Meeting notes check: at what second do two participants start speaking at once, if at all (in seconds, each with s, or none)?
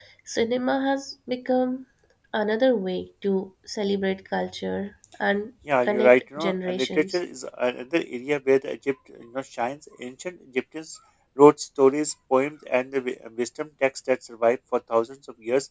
5.7 s